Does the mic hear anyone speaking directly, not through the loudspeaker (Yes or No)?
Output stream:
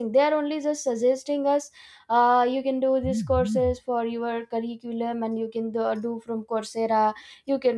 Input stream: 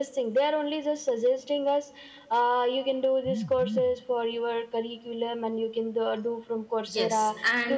Yes